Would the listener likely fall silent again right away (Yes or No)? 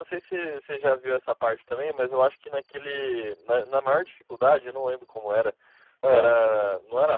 Yes